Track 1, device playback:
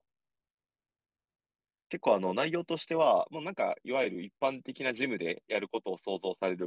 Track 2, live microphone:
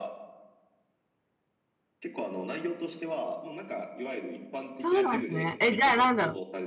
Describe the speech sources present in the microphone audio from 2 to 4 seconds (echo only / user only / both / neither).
echo only